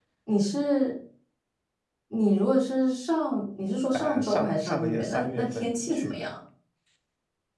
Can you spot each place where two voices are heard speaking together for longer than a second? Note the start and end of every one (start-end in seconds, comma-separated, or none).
3.9-6.3